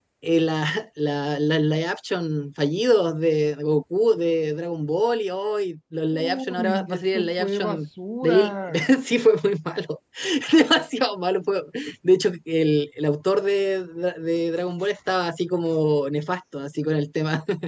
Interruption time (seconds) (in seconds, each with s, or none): 6.1 s